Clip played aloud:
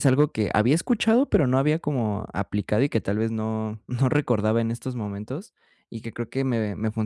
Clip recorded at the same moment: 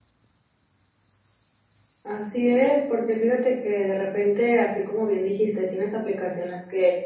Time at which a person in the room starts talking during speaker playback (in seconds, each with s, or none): 2.0 s